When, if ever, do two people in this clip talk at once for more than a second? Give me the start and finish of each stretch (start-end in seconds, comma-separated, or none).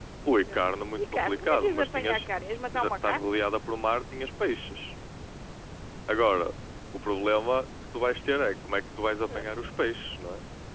1.0-2.2